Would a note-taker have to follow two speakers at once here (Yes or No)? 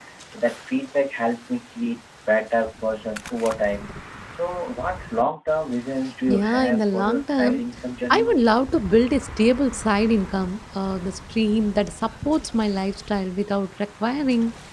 Yes